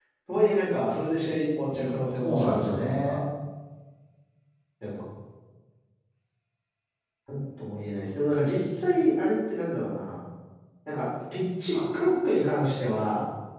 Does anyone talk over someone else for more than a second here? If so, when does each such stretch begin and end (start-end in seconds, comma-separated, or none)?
1.7-3.2